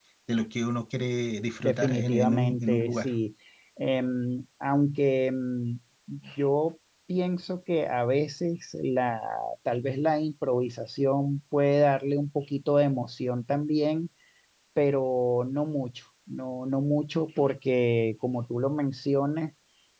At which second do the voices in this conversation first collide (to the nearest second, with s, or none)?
2 s